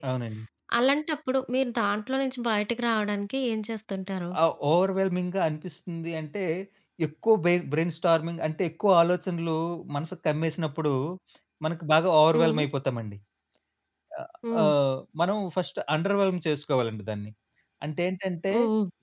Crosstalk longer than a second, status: none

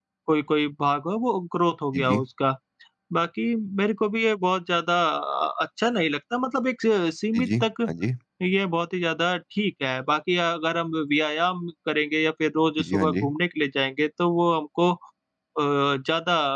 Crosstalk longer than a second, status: none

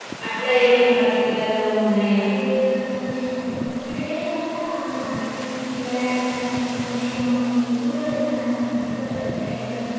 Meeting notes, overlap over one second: none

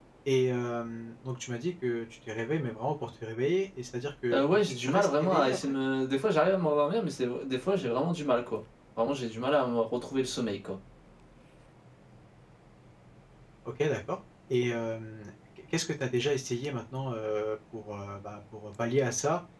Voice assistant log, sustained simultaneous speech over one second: present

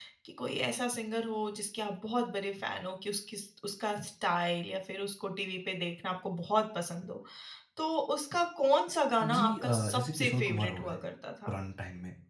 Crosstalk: present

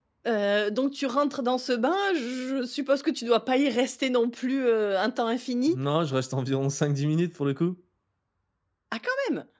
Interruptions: none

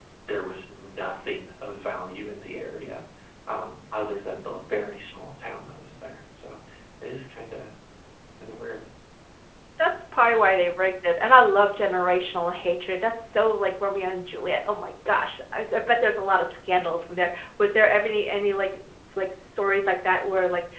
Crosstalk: none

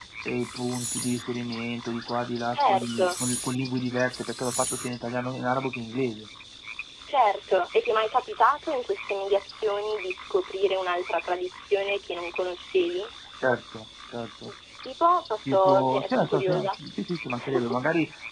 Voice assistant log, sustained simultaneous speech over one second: present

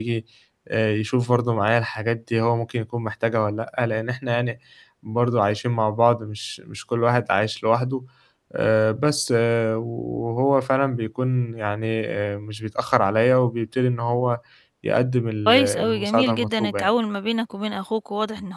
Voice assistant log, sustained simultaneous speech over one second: present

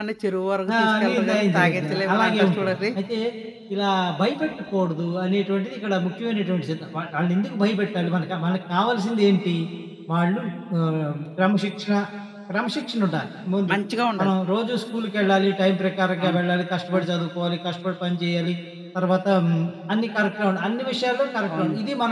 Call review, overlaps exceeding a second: present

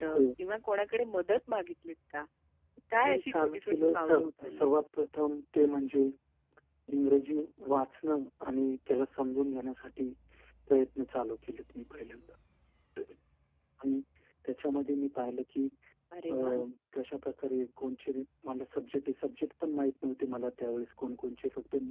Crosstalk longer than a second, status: present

